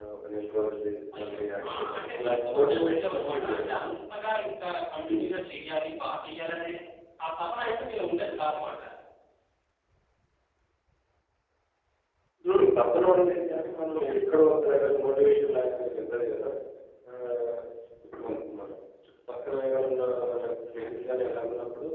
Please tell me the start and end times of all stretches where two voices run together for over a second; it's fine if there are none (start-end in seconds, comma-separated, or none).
1.1-3.7